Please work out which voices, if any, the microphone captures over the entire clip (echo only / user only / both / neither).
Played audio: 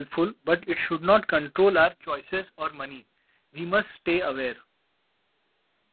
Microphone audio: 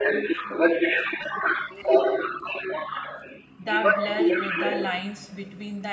both